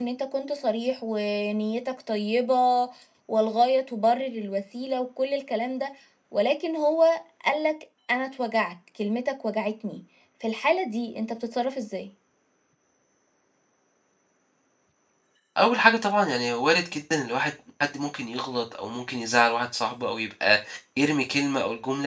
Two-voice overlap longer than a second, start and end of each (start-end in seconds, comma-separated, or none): none